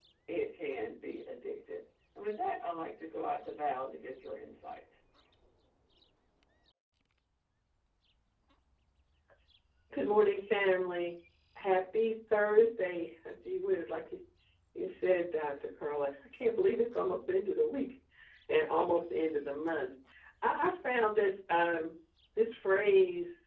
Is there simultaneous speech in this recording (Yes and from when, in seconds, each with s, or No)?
No